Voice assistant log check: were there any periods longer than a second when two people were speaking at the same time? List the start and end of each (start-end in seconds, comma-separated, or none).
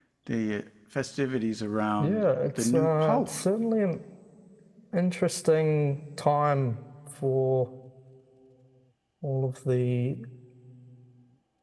2.0-3.3